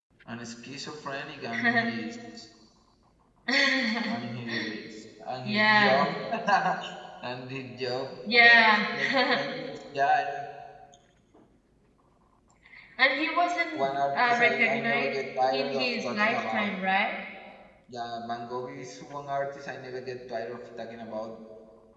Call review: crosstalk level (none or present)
present